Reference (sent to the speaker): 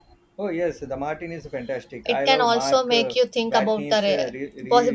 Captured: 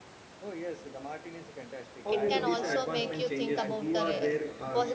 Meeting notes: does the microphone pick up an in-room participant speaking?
Yes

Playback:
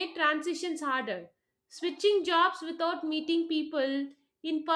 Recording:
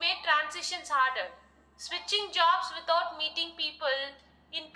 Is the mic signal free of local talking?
Yes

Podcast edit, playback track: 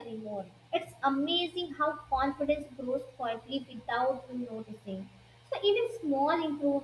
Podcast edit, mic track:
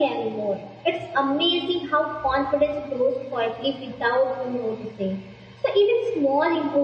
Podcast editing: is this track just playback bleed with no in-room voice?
Yes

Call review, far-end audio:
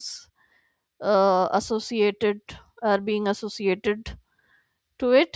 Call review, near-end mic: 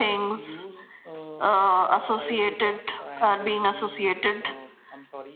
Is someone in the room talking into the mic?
Yes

